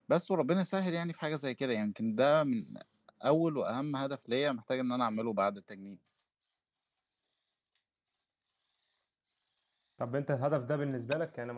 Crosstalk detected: No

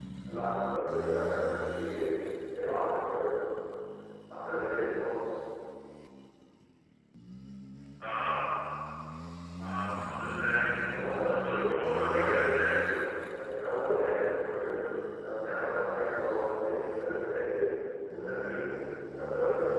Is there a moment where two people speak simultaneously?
Yes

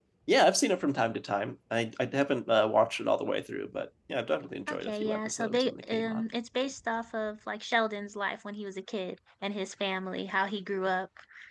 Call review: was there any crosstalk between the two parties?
Yes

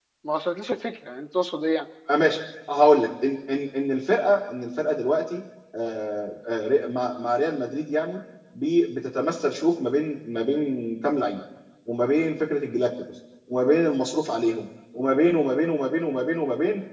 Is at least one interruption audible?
No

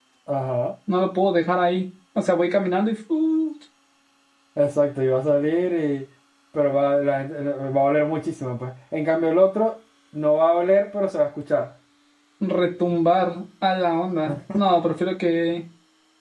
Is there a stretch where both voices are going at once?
No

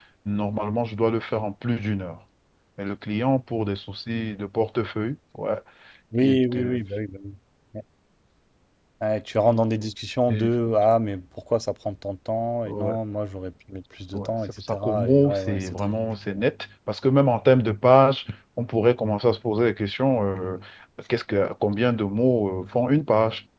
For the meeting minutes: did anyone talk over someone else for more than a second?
Yes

